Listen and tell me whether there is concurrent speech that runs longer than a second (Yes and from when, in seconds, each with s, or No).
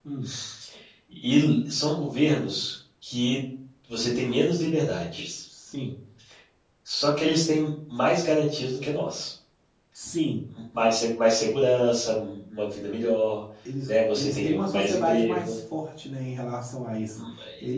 Yes, from 13.8 s